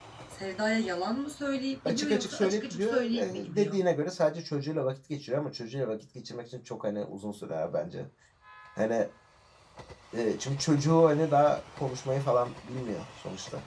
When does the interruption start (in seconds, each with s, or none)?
1.9 s